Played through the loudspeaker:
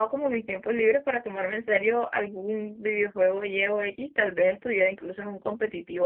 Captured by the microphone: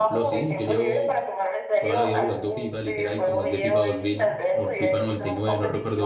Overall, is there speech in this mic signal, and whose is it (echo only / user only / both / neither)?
both